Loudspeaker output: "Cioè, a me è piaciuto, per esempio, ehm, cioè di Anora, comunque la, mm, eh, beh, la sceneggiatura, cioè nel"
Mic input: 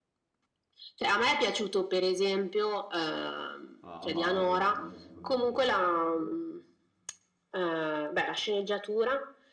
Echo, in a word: present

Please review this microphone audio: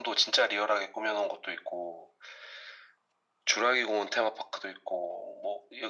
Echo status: present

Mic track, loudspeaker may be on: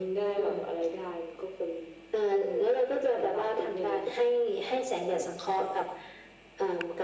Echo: present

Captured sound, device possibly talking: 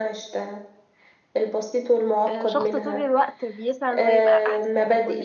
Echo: present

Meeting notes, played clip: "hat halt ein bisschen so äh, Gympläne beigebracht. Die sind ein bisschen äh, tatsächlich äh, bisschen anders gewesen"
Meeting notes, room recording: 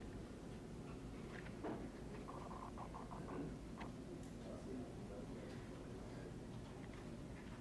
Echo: none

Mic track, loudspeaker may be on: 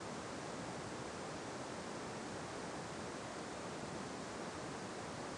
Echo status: none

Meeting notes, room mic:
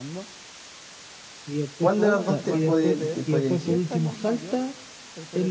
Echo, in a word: present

